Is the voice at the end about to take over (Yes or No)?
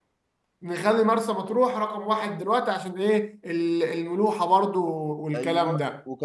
Yes